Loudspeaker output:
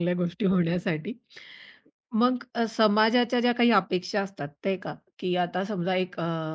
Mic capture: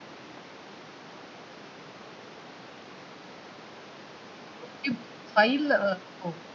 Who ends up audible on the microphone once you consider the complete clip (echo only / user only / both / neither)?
user only